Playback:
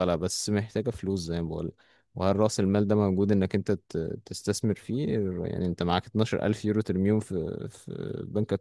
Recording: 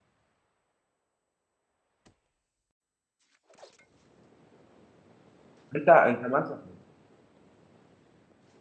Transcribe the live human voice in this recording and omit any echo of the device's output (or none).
انت انت مثلا